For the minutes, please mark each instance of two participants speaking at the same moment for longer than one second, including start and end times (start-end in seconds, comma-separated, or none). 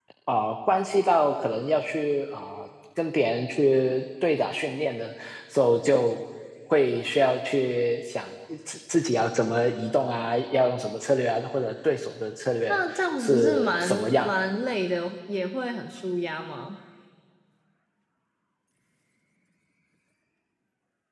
12.6-14.3